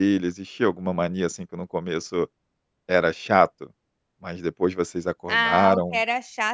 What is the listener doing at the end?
taking over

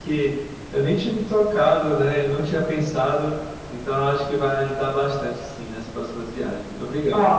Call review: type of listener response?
taking over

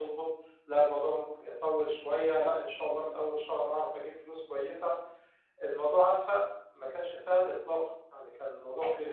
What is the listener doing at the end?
taking over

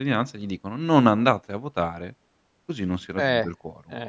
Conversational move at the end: taking over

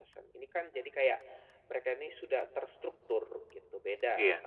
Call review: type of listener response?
listening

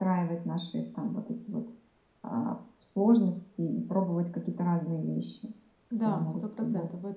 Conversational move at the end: taking over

